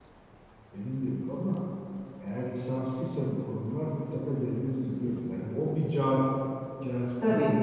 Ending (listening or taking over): listening